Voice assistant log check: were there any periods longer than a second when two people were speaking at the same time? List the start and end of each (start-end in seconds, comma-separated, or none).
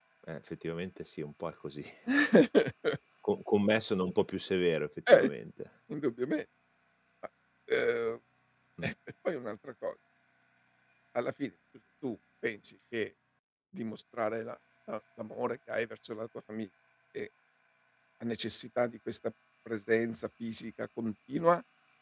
none